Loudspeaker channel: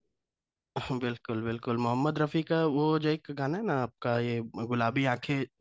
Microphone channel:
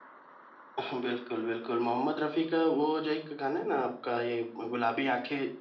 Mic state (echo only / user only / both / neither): echo only